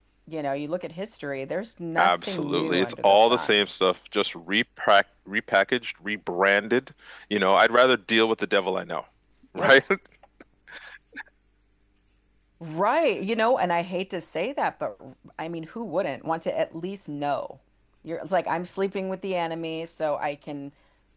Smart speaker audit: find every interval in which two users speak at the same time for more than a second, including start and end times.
2.0-3.6

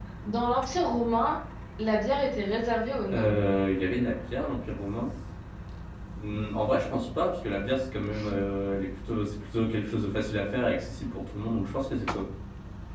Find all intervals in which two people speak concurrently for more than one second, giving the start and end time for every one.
none

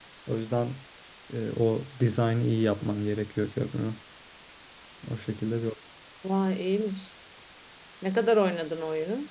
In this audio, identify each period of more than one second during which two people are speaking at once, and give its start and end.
none

